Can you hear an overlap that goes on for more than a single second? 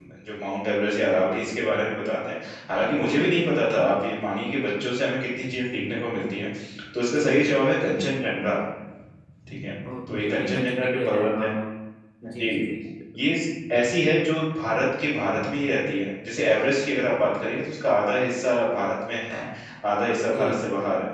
Yes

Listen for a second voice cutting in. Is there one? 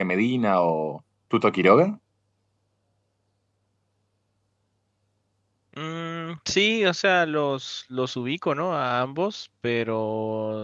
No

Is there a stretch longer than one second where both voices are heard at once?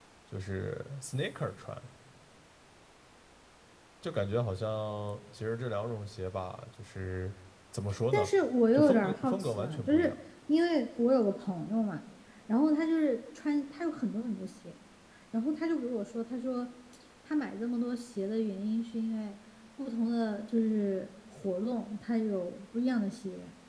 Yes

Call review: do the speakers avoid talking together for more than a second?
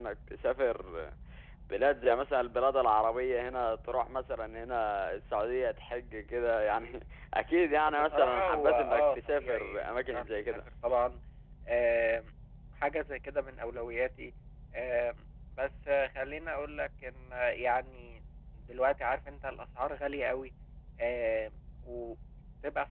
No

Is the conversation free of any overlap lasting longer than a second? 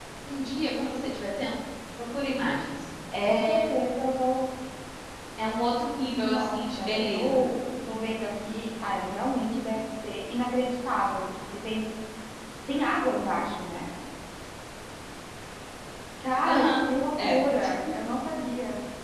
No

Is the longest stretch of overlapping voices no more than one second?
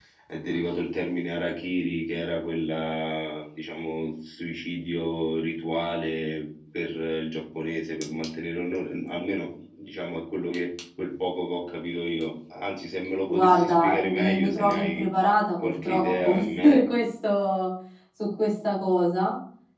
No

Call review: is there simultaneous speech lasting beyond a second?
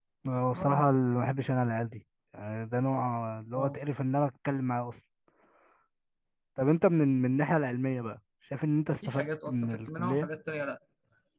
Yes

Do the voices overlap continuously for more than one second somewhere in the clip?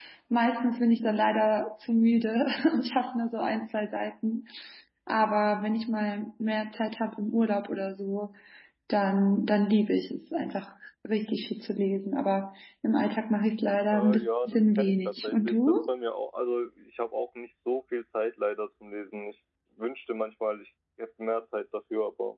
Yes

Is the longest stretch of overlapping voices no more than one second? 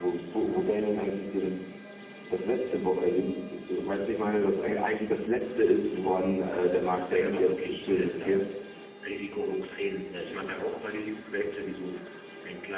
No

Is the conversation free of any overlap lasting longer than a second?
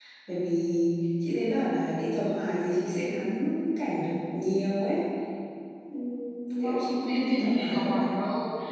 No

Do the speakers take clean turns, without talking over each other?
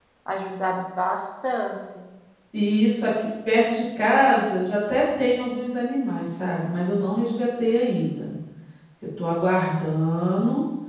Yes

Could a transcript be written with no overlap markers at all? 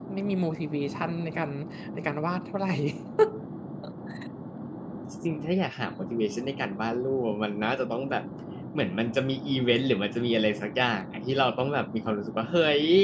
Yes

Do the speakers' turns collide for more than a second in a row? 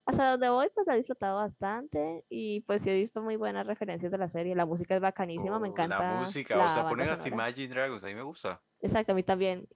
Yes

